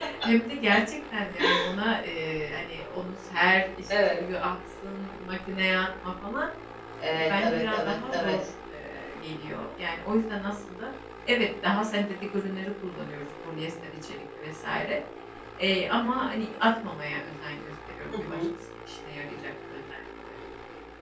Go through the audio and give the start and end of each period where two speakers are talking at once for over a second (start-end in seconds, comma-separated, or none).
7.1-8.4